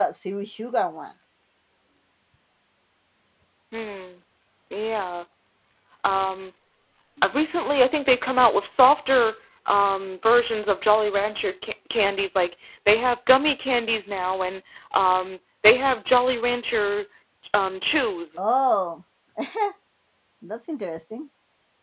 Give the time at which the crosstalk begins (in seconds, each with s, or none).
none